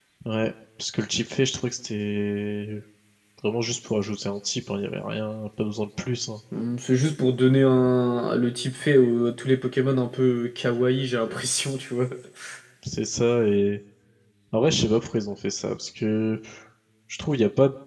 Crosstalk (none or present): none